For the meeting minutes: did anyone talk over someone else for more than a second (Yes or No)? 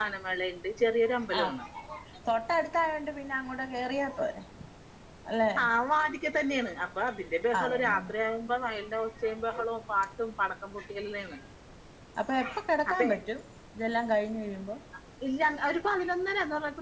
No